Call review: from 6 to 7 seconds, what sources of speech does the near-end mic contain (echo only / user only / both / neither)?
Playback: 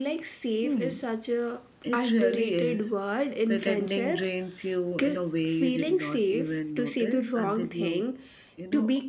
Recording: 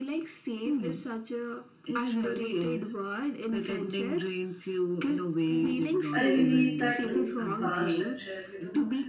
both